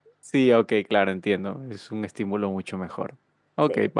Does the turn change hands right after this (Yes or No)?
No